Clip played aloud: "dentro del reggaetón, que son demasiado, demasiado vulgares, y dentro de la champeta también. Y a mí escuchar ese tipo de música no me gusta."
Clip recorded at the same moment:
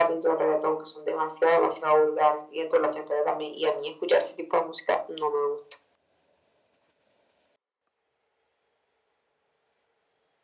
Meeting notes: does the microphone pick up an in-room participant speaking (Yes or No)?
No